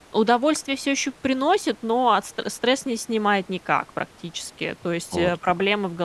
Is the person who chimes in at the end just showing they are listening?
Yes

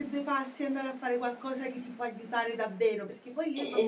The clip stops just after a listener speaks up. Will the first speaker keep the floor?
Yes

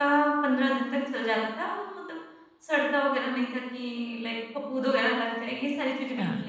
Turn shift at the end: Yes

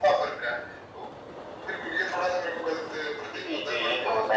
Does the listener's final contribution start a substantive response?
Yes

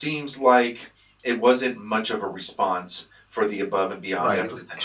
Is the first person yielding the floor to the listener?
Yes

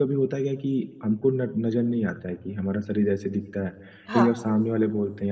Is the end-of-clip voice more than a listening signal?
No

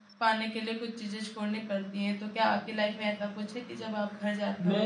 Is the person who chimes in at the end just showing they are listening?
No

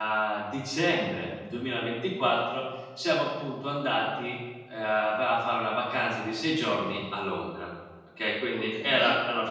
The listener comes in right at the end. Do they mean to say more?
No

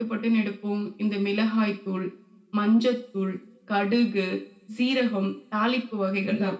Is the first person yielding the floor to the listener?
Yes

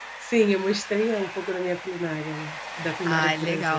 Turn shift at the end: Yes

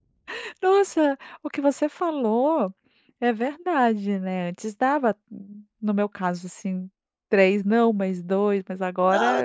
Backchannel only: No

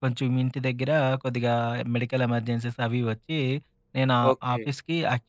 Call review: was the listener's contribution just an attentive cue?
Yes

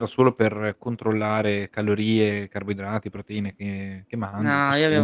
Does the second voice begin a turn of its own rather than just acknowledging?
Yes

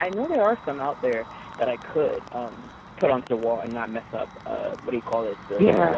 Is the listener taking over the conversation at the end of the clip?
Yes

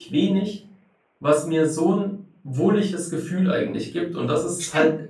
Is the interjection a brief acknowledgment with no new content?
Yes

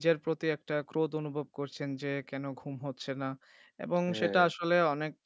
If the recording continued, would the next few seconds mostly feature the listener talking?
No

